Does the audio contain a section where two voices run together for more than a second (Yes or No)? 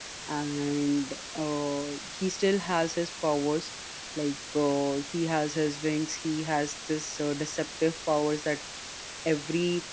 No